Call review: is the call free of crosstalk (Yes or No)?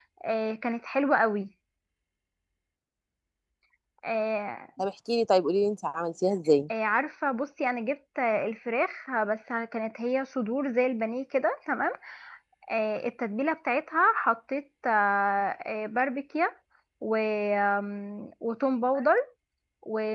Yes